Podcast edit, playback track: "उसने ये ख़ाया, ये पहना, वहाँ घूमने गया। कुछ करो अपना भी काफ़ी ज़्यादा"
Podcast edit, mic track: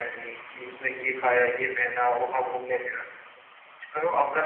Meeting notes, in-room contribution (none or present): none